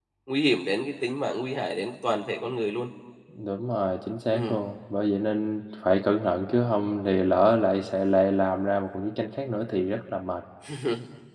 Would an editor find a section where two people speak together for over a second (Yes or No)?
No